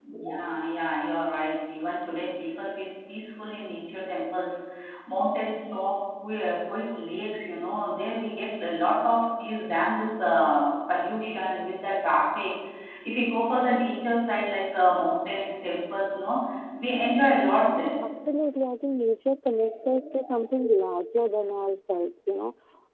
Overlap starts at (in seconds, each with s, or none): none